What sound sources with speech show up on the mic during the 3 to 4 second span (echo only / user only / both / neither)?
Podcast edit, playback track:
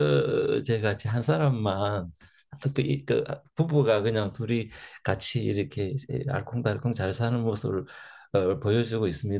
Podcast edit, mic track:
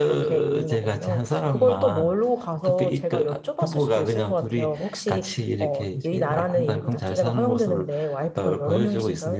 both